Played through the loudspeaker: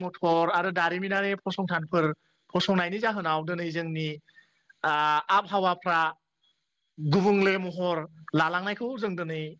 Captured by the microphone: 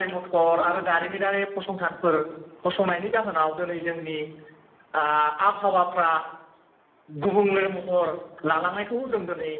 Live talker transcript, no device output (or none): none